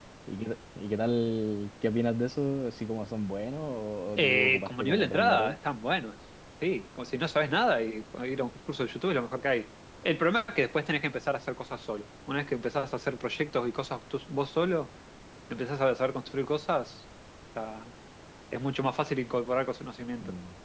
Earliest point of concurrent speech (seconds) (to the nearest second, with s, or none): 4 s